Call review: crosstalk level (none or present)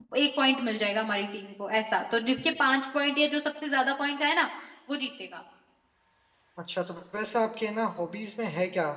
none